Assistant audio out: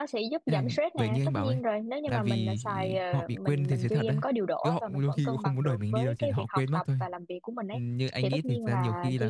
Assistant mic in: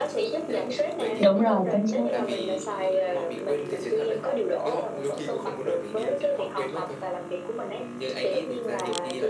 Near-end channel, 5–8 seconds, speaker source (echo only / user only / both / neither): echo only